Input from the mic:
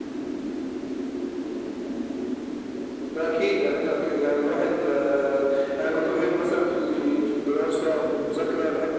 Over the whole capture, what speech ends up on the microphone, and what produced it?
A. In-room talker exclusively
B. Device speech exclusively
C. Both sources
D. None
B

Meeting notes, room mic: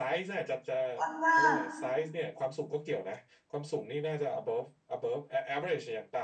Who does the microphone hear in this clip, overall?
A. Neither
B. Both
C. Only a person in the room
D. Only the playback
B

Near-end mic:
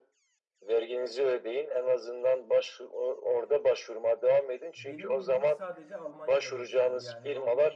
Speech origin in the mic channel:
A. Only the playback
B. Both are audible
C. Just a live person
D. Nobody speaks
B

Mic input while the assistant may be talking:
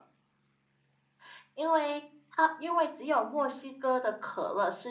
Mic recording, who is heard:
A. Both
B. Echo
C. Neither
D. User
B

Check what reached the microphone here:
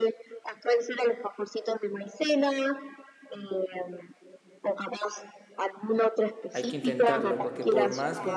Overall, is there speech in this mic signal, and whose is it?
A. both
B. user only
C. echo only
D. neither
A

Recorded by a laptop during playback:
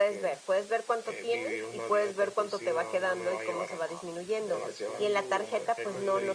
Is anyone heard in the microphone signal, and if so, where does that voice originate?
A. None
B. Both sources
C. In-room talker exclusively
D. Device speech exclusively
B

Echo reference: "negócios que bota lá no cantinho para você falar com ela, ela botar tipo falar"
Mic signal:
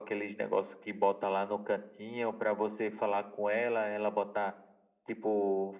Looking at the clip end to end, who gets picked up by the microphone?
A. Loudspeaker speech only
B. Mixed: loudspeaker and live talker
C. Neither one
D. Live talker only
A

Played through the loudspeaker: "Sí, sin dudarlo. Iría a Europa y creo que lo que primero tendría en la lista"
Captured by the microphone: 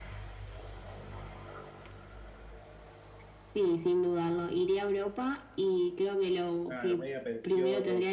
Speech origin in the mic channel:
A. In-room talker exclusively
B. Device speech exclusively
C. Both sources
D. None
C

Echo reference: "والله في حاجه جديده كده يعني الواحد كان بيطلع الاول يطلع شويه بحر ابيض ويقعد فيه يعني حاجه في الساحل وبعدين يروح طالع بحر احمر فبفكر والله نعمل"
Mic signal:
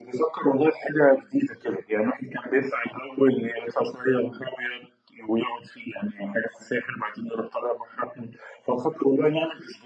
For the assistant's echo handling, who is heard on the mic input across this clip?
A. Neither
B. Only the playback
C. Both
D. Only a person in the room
B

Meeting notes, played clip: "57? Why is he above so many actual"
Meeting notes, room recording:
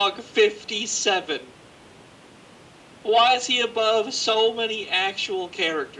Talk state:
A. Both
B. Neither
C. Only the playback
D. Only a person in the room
C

